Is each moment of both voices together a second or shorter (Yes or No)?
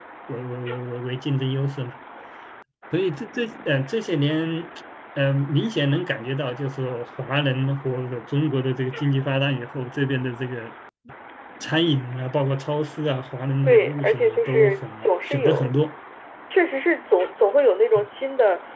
No